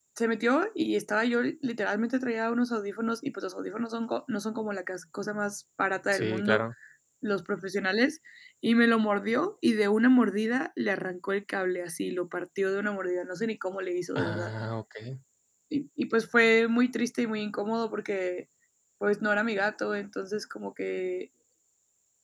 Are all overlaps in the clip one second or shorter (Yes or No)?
Yes